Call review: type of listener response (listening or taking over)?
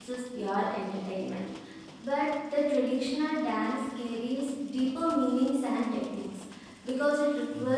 listening